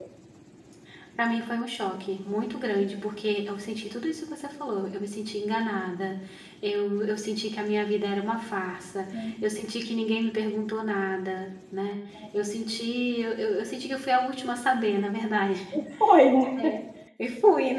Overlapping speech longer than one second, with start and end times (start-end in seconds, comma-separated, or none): none